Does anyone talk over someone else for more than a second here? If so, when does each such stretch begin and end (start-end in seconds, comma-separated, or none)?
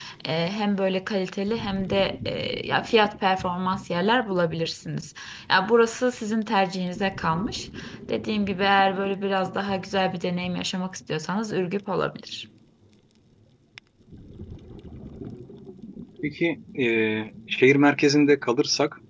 none